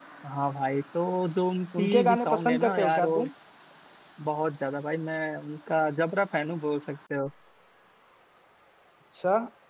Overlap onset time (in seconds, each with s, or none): 1.7 s